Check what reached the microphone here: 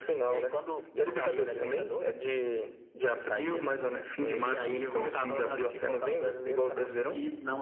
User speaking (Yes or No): No